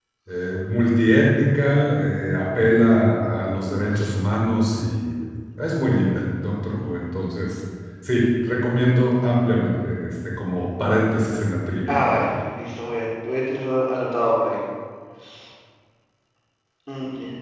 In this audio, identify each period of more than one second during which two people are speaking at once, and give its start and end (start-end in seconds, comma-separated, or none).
none